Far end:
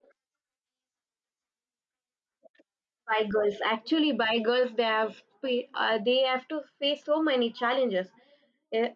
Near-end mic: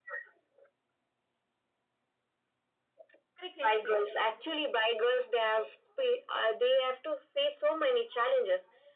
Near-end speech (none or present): present